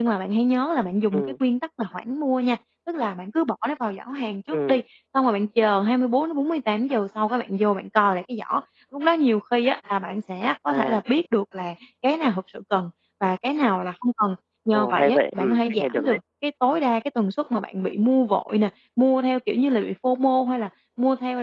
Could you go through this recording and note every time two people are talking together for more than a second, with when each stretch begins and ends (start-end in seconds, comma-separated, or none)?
14.7-16.2